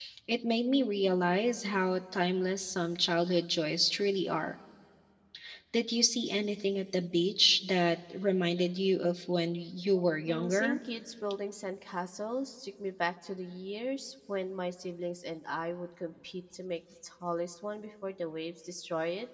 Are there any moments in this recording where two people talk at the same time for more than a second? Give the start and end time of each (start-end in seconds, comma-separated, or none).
none